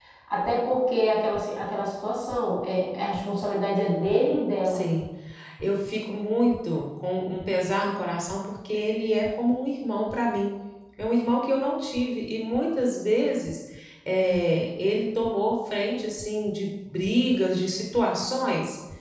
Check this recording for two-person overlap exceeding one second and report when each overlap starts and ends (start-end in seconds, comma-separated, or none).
none